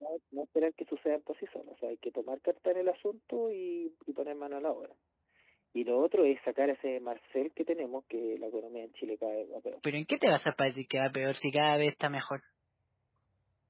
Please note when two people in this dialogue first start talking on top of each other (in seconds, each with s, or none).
none